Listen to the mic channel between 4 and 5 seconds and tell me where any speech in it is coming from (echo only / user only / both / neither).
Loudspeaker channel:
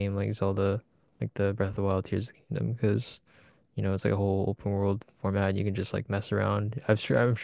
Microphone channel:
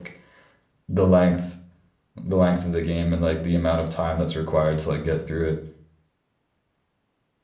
user only